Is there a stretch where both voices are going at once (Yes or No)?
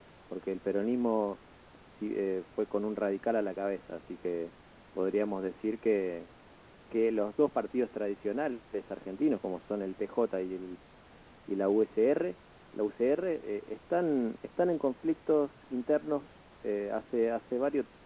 No